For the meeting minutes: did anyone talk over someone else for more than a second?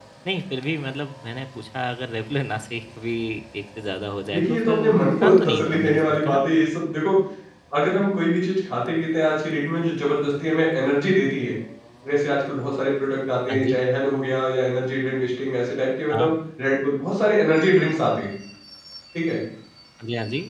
Yes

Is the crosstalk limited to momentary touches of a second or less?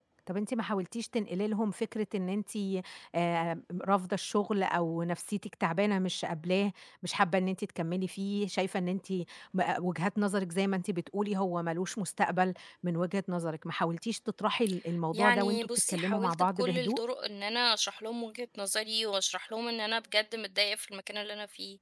No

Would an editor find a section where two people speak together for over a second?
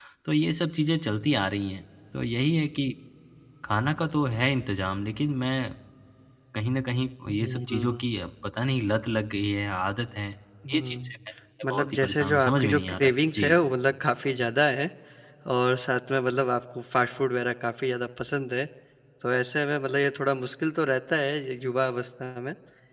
Yes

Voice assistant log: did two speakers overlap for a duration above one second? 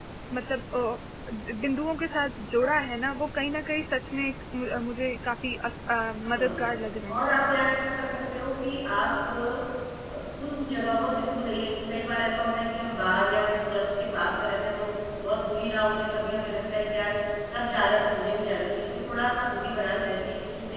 No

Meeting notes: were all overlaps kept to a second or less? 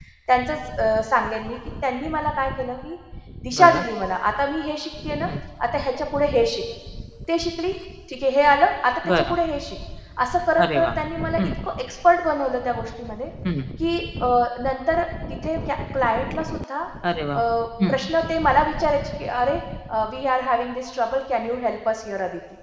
Yes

